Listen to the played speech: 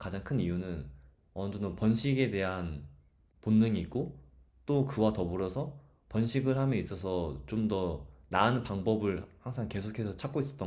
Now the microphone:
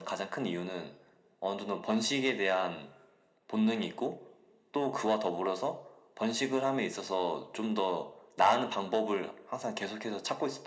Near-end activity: none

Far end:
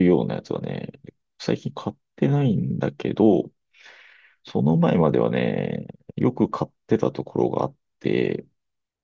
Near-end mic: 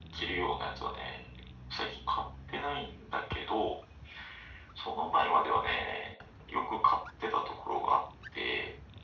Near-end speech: none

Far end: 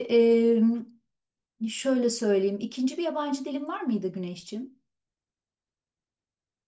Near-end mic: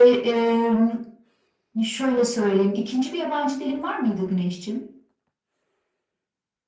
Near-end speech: none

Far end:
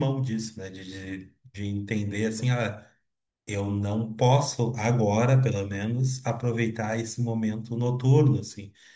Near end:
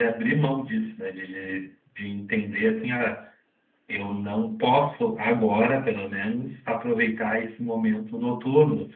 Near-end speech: none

